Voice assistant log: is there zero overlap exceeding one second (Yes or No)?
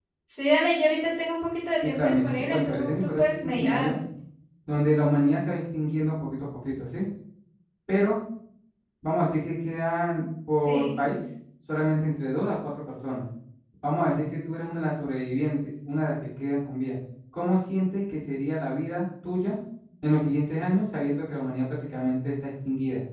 No